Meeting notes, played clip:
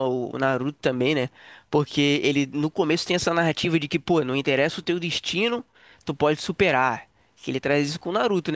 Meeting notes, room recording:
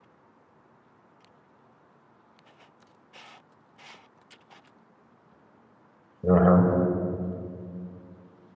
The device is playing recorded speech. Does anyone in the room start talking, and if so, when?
6.3 s

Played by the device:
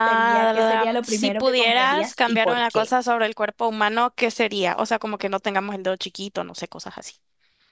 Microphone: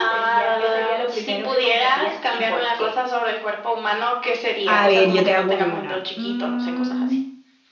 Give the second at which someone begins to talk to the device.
4.6 s

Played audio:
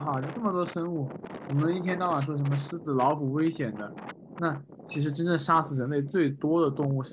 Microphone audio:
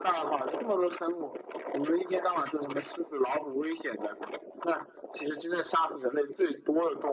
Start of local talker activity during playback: none

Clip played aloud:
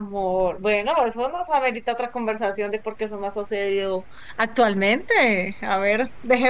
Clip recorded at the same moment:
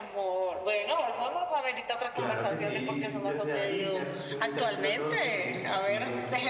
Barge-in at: 2.1 s

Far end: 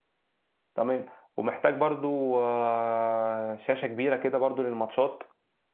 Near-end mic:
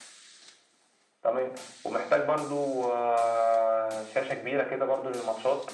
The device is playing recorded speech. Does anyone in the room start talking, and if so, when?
none

